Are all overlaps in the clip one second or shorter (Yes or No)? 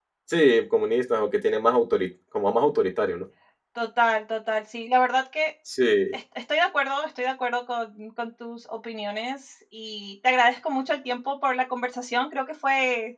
Yes